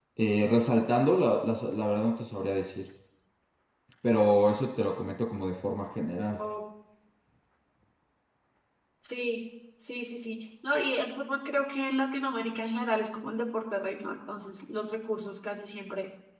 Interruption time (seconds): none

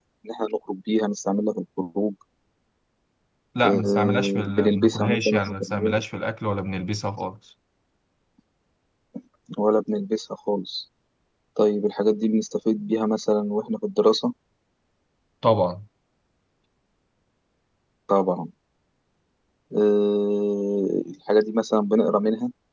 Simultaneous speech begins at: 3.6 s

